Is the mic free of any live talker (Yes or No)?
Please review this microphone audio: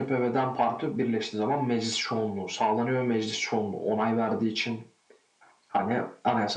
Yes